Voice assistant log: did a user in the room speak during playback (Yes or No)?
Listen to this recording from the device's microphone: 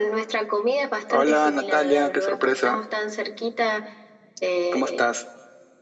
No